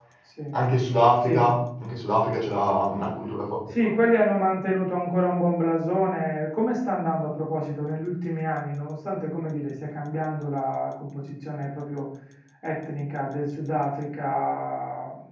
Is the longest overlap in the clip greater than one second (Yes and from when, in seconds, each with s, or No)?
No